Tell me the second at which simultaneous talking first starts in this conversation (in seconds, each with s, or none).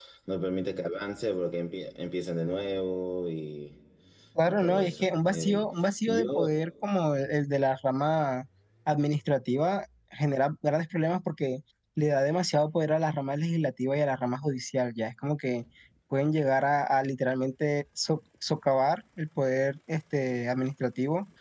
4.5 s